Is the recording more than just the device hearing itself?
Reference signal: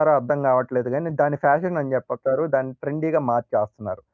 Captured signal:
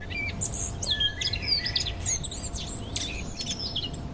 No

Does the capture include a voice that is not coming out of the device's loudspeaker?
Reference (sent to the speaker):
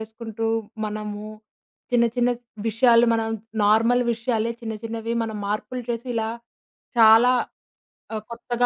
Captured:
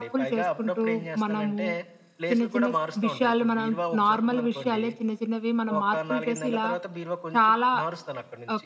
Yes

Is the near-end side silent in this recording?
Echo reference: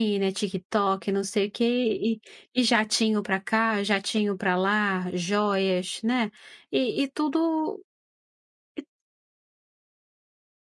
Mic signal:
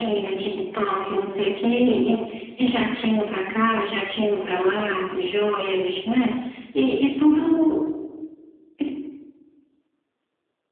Yes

